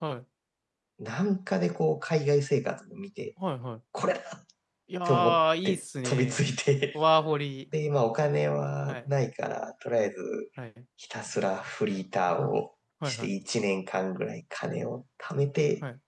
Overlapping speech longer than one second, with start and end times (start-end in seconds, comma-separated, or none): 5.0-6.5